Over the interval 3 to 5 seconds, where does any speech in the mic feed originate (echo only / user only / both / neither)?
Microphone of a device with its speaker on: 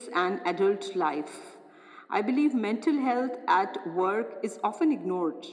echo only